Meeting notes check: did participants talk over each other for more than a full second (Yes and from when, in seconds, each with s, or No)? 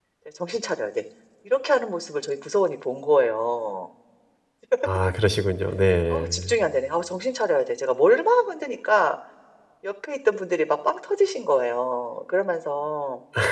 No